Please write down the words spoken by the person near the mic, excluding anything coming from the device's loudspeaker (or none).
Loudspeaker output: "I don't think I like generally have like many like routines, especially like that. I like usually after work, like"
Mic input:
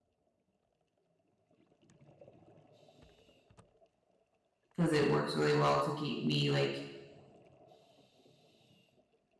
because it works really well to keep me like